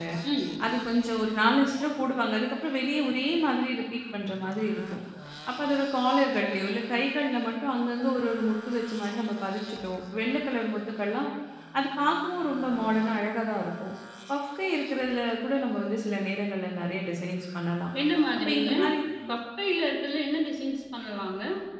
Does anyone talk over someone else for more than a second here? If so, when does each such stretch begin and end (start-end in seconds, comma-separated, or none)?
none